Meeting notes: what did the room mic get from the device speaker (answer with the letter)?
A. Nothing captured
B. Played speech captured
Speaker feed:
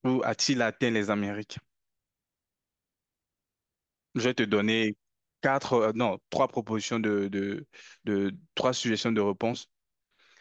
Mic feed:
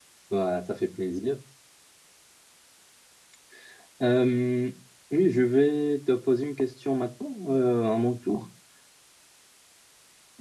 A